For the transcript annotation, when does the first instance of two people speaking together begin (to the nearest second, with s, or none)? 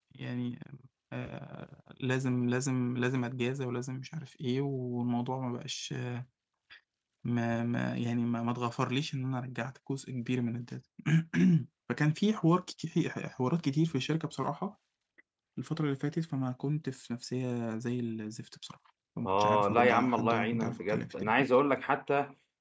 19 s